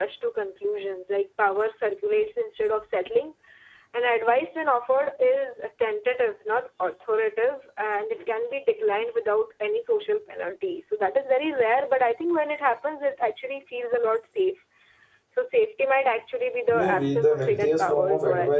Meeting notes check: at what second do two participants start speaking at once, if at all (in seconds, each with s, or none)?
16.7 s